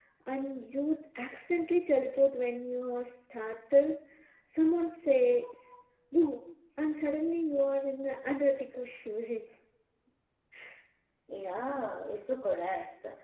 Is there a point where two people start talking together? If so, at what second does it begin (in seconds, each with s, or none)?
none